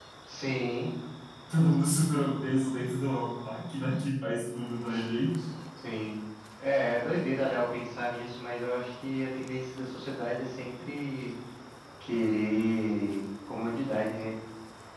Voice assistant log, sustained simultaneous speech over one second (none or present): none